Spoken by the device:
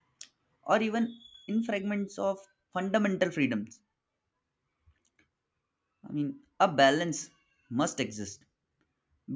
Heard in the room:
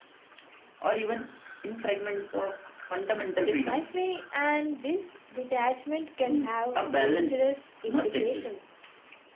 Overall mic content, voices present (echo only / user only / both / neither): both